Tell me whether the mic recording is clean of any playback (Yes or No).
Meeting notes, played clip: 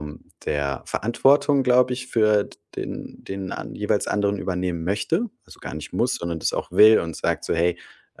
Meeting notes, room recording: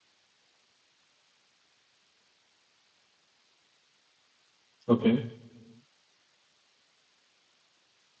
Yes